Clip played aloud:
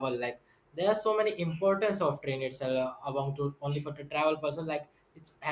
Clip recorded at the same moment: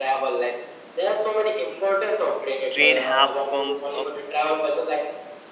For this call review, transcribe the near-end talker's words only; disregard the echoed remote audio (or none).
train have come a